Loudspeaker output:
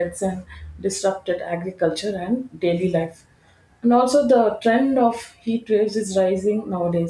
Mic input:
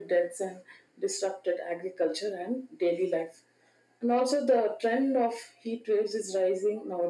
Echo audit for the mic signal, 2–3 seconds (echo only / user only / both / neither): echo only